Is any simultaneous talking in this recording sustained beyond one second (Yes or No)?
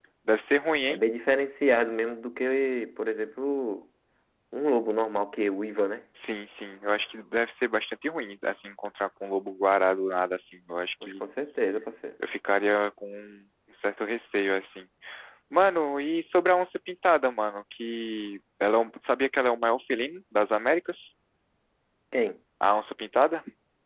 No